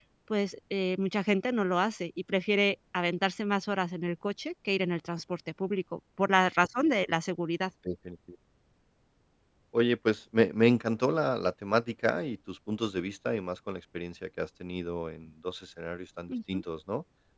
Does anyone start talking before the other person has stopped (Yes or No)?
No